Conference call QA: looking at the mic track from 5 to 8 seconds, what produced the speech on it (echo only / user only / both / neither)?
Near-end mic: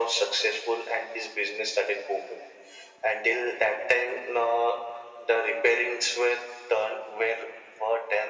echo only